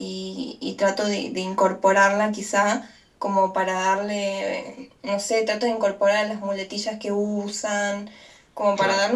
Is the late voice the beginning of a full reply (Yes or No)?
No